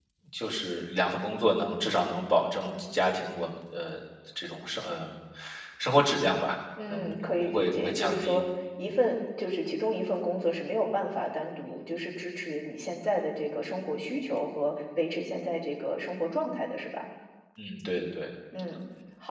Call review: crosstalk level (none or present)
present